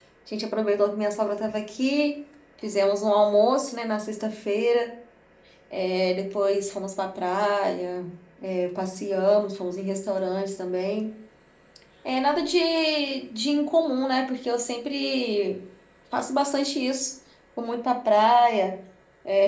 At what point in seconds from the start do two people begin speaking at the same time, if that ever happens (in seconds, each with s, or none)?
none